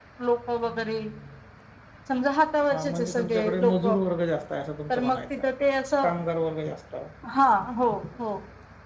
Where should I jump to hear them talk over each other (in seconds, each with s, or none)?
2.7 s